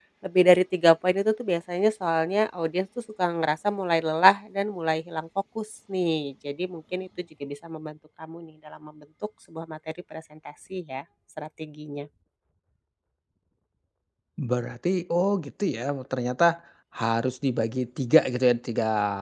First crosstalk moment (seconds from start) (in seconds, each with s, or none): none